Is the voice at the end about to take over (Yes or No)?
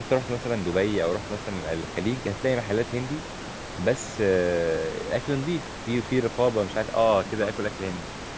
No